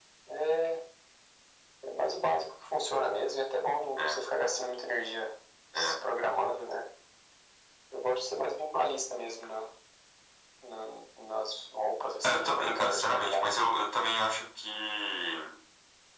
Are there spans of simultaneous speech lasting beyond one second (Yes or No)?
Yes